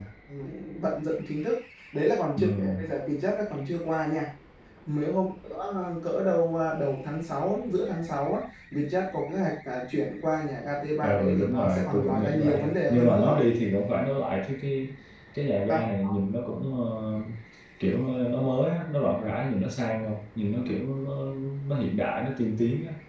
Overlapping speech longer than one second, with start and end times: 11.0-13.3

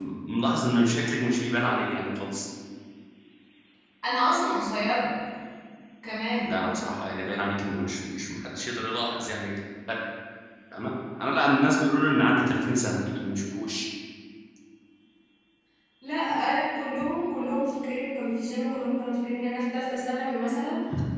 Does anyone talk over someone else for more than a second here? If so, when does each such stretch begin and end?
none

